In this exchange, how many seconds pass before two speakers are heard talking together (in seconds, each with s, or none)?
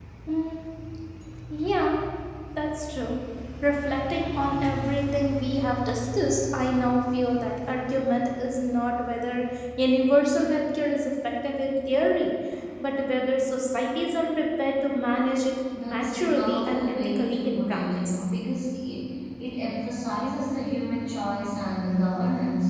15.8 s